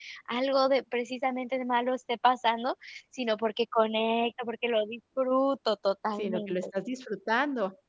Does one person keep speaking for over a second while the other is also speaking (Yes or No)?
No